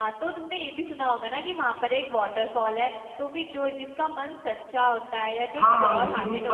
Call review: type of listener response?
taking over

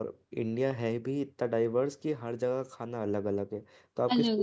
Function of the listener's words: listening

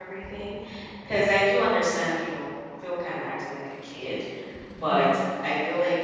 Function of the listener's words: listening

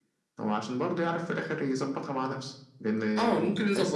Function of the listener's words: taking over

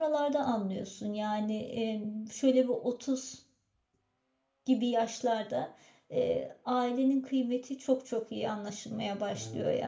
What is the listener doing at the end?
taking over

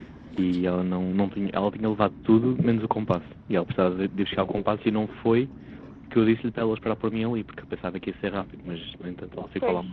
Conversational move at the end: listening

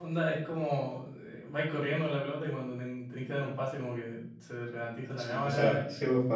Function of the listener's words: taking over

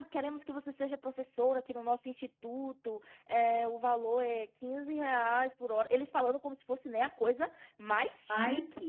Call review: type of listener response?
listening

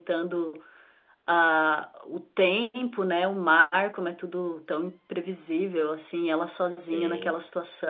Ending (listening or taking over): listening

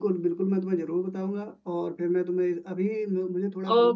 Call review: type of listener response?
listening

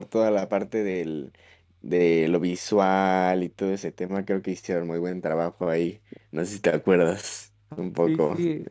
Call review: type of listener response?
taking over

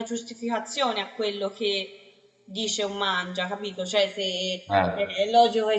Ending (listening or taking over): listening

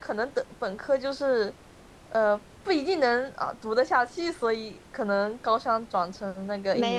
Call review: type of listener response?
taking over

